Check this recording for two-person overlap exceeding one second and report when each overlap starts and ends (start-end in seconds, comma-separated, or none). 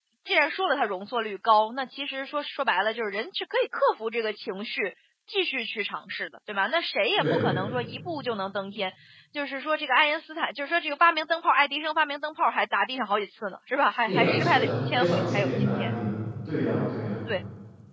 14.1-15.9